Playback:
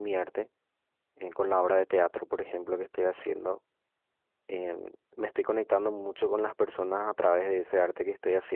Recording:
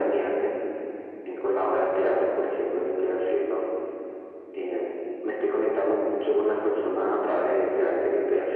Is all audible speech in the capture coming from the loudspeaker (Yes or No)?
Yes